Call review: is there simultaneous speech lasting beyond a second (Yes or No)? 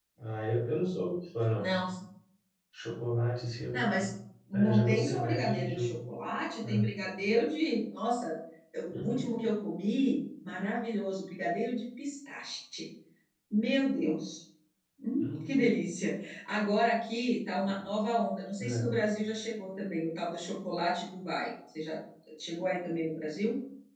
Yes